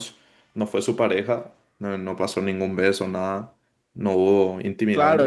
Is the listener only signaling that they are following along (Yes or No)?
No